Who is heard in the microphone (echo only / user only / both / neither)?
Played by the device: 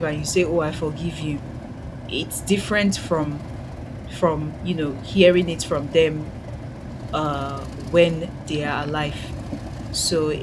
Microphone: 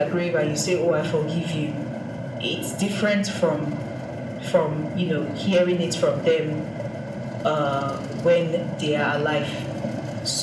echo only